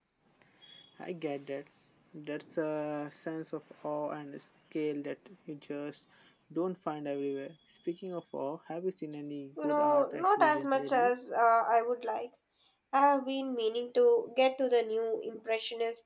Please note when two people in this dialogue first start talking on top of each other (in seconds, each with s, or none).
9.6 s